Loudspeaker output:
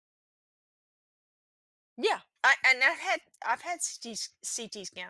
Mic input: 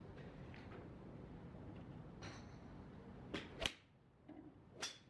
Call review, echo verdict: none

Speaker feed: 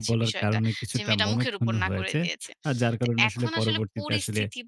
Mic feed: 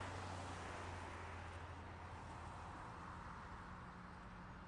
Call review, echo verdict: none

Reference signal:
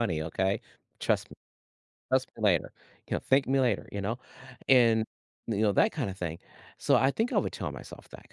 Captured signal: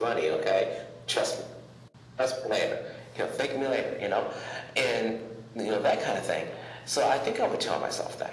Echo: present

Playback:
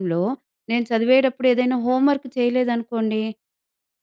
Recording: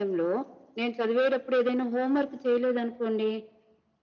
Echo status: present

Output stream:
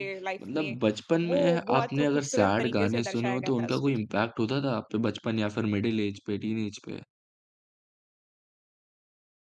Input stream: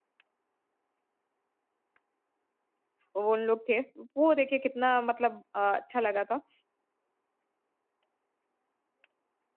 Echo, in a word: none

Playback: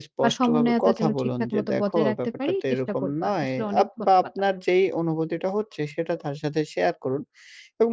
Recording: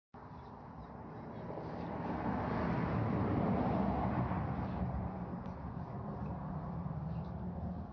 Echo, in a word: none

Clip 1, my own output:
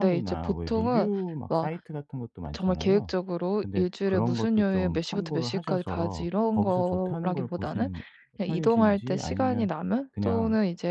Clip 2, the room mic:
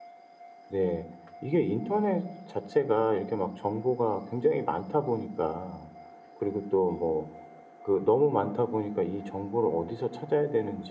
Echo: none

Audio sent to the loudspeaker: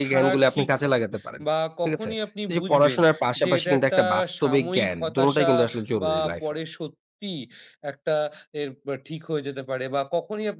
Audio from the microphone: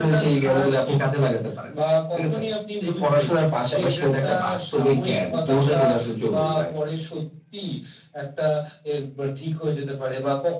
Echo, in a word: present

